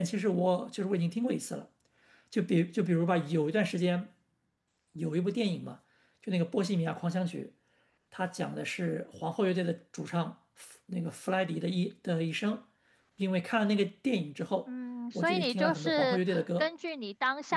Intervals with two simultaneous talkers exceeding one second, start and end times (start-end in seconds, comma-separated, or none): 15.2-16.7